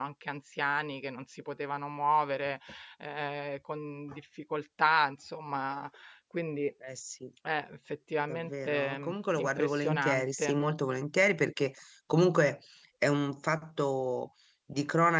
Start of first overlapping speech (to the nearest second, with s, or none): 8 s